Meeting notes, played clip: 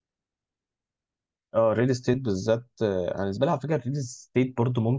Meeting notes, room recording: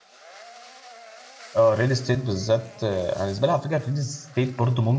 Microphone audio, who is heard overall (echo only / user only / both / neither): echo only